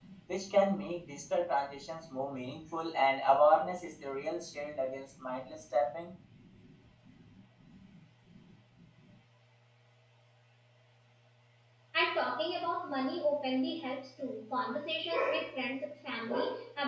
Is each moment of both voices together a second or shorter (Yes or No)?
Yes